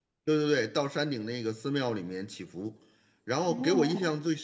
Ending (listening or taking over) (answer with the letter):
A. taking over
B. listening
B